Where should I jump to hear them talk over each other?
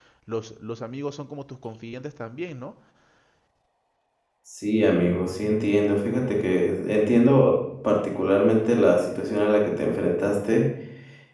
none

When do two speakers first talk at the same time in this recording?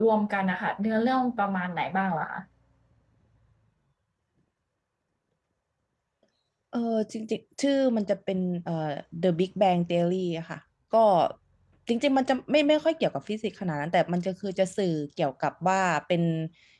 none

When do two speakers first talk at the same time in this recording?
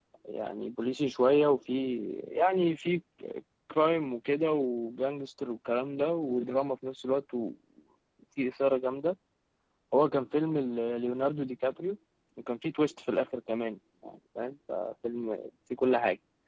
none

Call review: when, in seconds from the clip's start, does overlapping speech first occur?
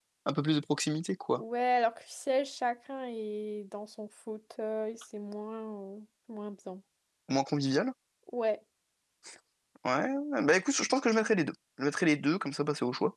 none

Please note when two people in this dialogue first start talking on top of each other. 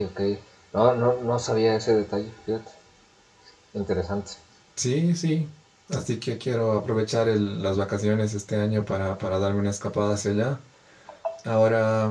none

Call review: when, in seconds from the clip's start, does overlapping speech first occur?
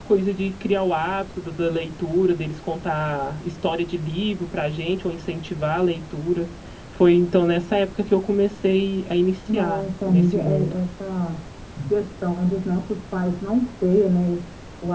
9.5 s

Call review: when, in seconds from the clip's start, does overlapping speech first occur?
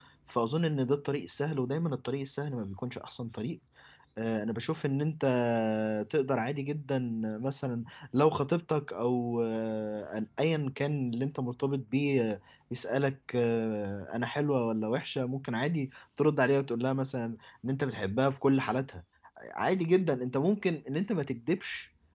none

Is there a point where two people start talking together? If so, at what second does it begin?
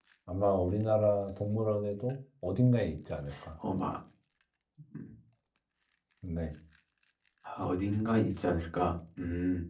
none

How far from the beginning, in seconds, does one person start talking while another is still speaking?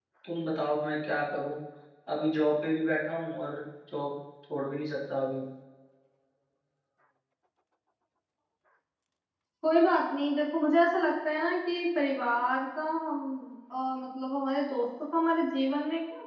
none

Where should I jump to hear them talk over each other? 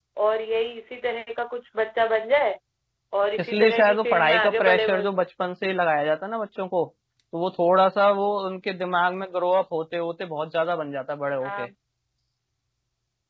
3.4 s

